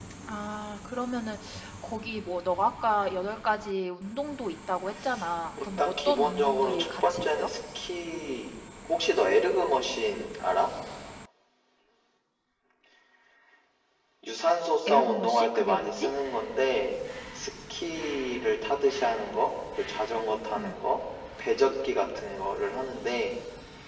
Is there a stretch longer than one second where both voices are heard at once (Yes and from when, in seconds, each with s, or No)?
Yes, from 5.6 s